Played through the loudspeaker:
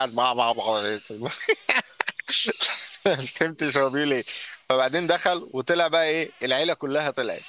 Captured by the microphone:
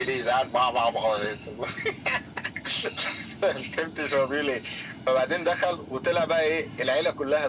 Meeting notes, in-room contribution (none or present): none